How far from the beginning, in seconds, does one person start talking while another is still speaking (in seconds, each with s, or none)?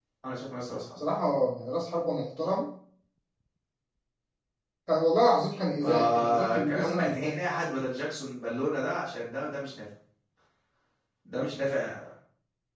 5.8 s